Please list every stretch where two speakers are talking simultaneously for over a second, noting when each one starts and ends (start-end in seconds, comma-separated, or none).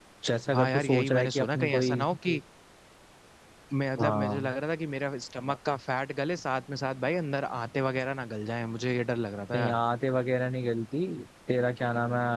0.5-2.0